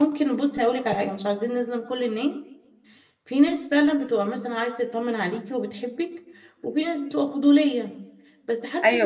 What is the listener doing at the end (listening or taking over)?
listening